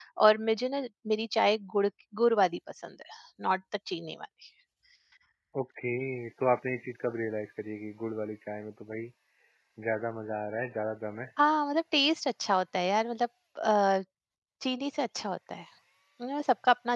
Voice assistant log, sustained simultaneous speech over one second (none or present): none